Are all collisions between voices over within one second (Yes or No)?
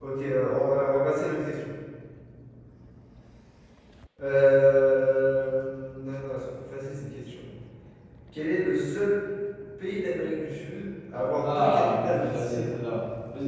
No